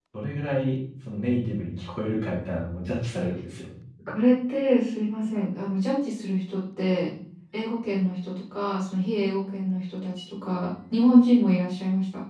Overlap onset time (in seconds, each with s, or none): none